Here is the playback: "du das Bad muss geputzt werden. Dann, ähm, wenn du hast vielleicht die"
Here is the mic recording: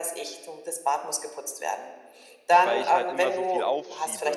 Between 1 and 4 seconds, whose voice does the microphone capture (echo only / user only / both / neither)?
both